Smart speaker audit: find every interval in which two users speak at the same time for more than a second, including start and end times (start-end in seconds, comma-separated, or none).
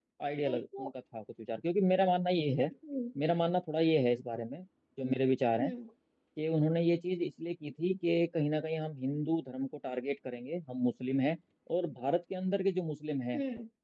none